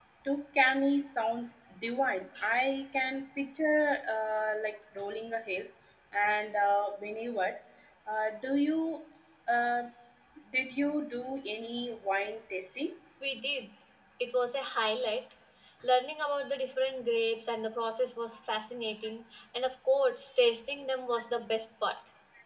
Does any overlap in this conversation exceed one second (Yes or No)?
No